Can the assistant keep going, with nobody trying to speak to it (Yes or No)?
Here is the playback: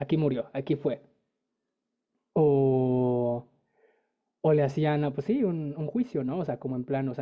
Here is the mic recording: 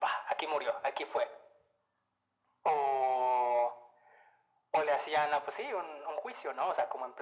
Yes